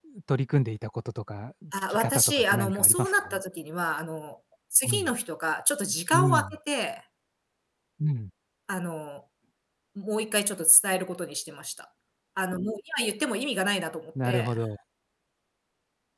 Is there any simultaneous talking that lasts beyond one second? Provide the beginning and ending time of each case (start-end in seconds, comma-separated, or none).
1.9-3.4